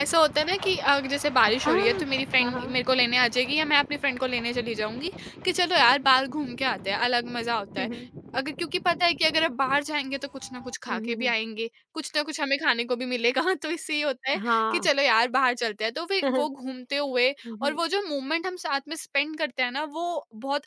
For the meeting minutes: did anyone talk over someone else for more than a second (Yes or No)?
No